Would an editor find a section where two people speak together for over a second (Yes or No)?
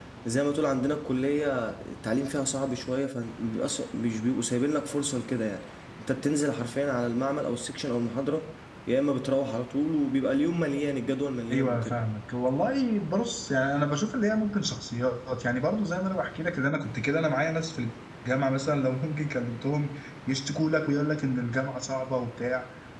No